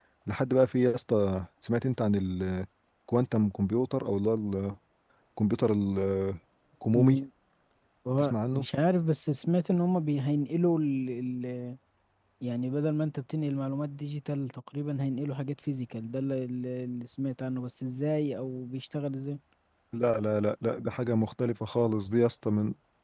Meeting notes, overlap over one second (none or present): none